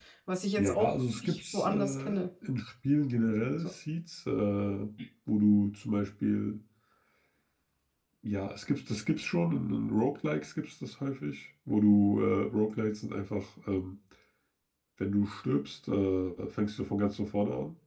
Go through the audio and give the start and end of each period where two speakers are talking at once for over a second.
0.6-2.2

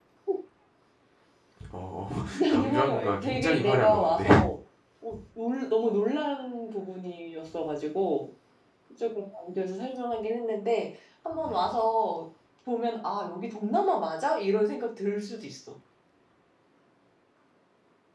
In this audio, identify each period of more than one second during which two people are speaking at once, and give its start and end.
2.5-4.3

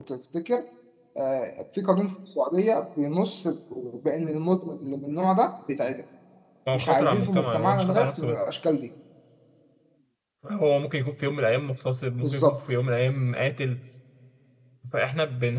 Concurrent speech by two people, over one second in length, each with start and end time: 6.7-8.4

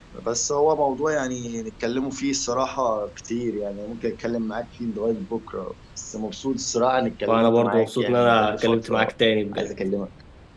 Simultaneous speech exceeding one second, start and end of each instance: 7.3-9.1

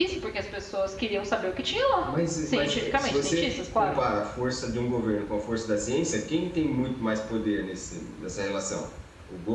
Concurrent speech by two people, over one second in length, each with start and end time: 2.5-4.0

